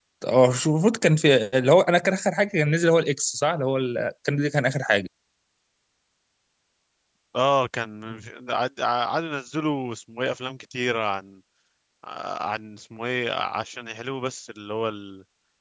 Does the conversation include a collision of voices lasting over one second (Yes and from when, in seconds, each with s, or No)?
No